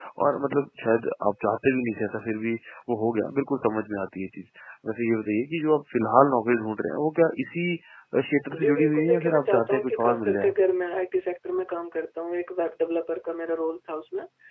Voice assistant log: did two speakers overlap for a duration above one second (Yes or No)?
Yes